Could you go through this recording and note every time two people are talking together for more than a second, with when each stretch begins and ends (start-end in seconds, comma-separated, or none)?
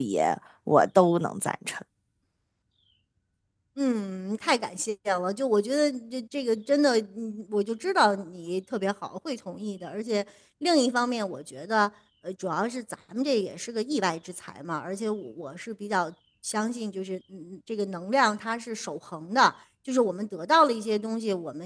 none